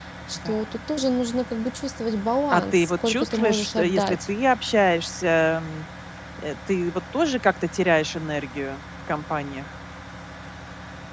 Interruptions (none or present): present